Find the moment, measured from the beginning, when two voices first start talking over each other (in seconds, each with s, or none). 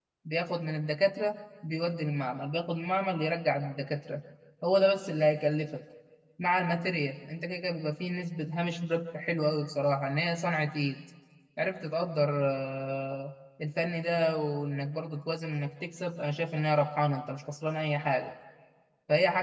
none